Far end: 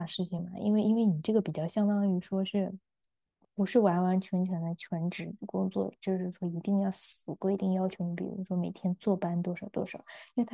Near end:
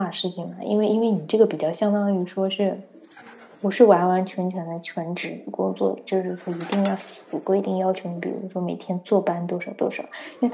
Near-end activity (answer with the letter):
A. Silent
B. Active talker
A